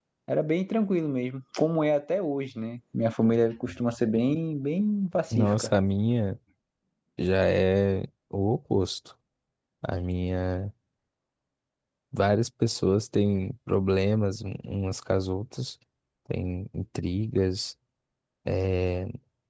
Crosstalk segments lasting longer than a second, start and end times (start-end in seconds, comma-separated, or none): none